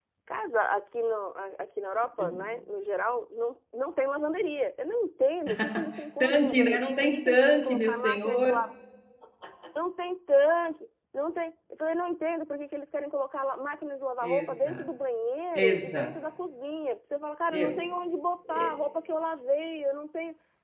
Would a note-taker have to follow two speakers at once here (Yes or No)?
Yes